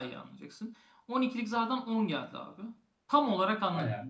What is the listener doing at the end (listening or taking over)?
listening